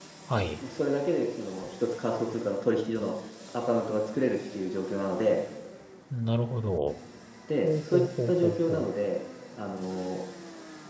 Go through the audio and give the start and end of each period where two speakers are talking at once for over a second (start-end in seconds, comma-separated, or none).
7.6-8.9